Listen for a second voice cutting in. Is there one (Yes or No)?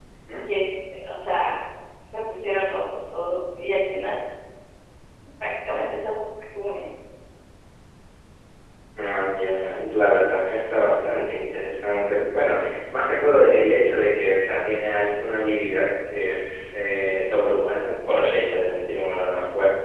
No